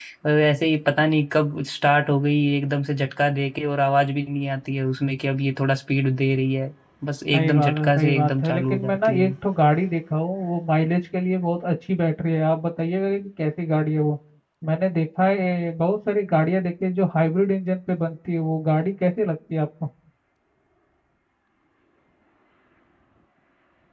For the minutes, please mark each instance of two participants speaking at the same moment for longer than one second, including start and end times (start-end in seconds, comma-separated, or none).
7.3-9.3